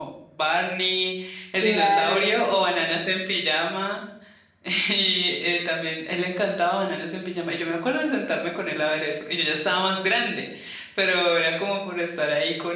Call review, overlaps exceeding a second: present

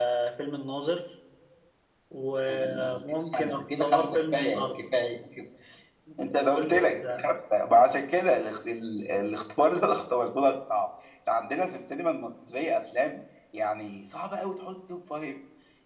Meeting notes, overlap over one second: present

